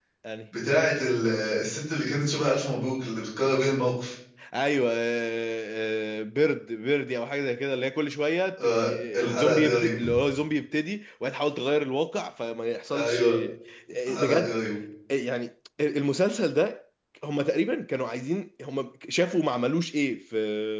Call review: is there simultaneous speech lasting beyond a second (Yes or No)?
Yes